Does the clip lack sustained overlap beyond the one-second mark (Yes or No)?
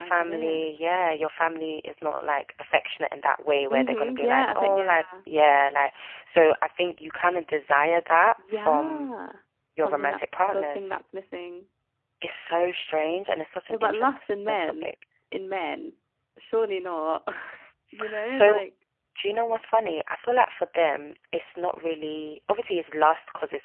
No